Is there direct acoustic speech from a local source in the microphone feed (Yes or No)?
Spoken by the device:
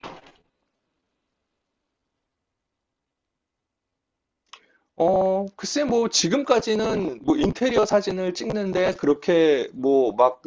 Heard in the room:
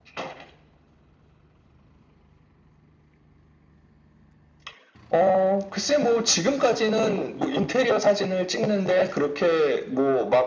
No